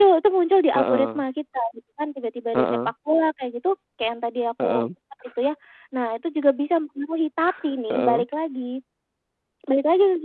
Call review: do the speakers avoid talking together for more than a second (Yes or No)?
Yes